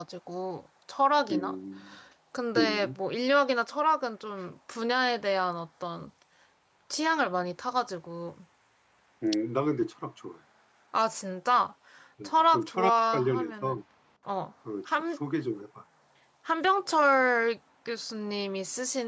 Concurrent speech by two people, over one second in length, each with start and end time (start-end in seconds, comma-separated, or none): 12.2-13.8